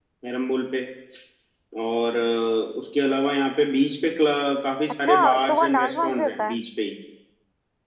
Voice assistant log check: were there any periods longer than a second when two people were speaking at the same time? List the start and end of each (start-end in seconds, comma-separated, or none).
5.0-6.6